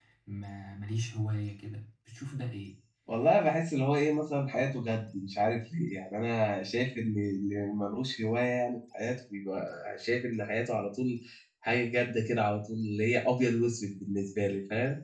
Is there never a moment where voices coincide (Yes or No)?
Yes